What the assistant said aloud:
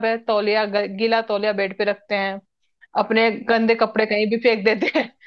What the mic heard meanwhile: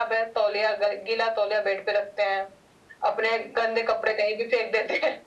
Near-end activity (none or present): none